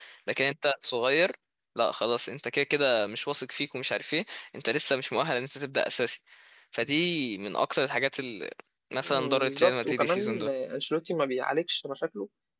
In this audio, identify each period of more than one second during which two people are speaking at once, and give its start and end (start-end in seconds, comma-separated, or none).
9.1-10.5